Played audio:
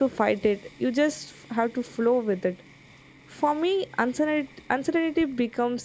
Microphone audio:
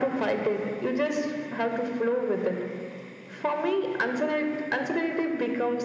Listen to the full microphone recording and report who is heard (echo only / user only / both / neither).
echo only